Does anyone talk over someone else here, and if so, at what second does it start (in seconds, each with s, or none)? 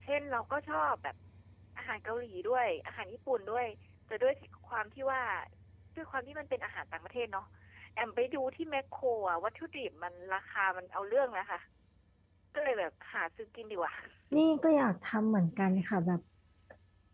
none